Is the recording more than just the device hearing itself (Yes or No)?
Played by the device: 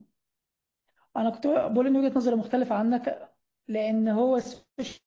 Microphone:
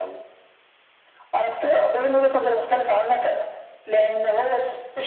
No